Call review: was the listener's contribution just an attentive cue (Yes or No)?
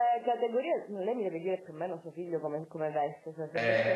Yes